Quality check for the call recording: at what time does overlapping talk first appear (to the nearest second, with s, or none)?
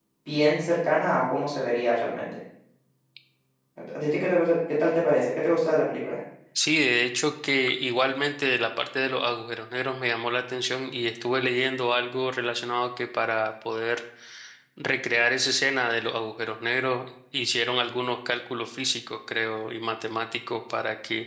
none